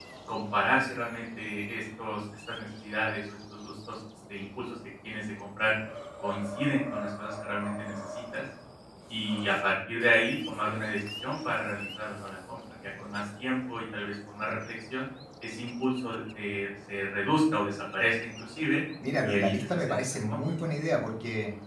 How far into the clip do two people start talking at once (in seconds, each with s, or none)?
19.2 s